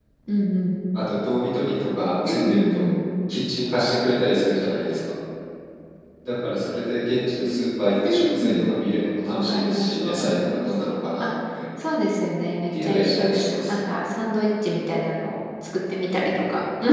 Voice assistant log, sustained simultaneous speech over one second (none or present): present